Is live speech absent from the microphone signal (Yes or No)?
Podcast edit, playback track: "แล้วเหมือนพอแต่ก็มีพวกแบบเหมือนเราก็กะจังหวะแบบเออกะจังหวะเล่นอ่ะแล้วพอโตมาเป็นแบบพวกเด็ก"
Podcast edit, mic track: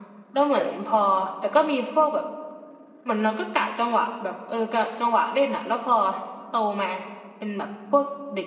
No